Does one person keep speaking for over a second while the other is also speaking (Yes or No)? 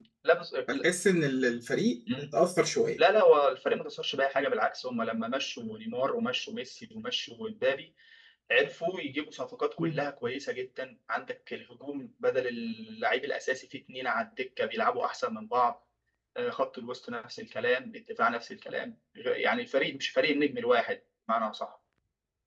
No